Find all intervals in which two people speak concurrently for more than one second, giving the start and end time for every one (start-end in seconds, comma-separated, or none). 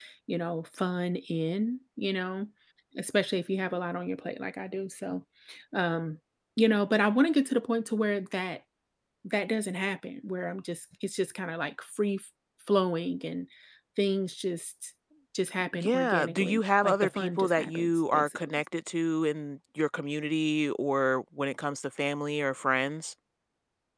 15.7-18.6